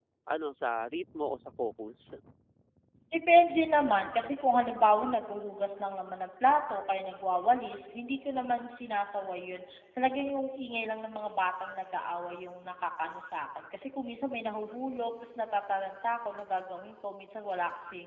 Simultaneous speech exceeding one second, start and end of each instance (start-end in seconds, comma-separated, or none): none